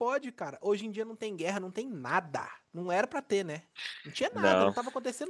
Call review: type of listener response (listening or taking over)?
listening